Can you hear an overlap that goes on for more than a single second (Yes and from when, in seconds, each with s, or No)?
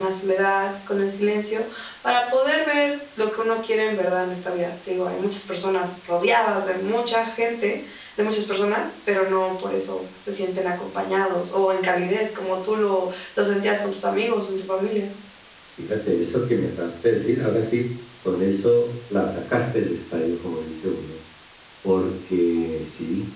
No